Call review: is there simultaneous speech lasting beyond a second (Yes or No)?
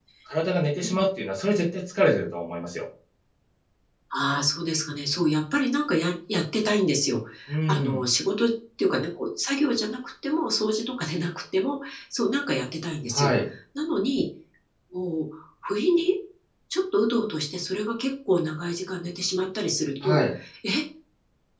No